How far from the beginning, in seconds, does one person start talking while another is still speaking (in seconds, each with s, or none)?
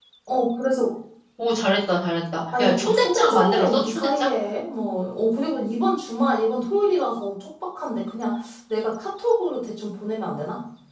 2.5 s